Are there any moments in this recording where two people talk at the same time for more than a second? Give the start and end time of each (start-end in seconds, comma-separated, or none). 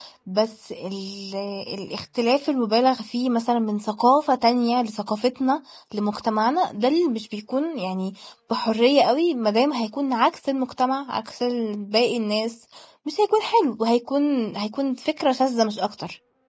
none